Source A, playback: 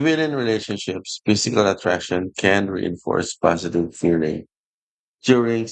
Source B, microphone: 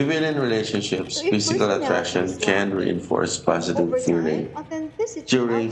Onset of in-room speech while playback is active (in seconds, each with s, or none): 1.1 s